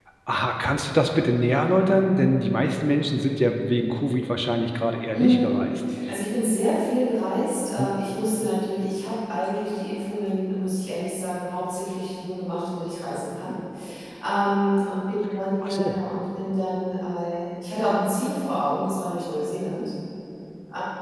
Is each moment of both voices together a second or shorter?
Yes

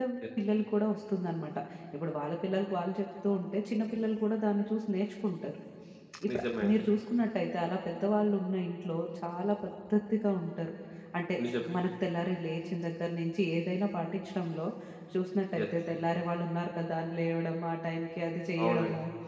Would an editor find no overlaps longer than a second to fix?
Yes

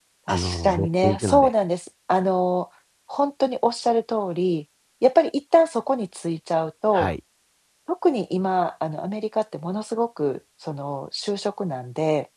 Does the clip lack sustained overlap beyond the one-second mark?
No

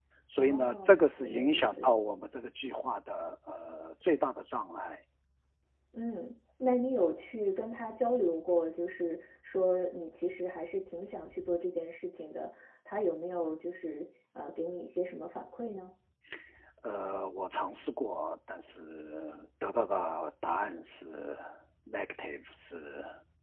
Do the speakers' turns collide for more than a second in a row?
Yes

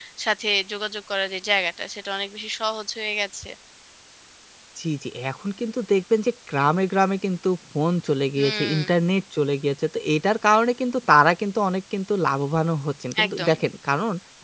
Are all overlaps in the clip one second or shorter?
Yes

